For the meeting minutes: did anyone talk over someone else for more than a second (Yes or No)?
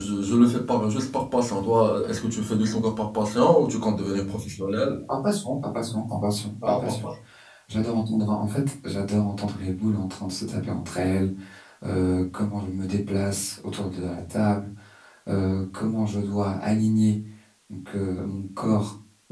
No